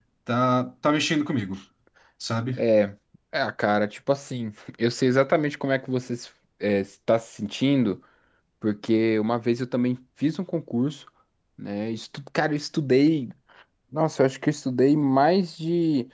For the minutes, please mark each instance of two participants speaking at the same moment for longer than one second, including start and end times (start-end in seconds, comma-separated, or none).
none